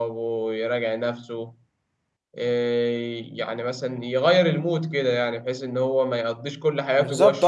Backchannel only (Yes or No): No